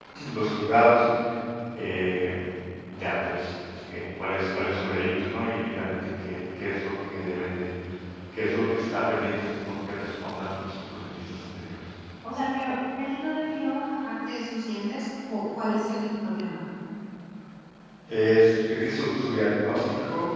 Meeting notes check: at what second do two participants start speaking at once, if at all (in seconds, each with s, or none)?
none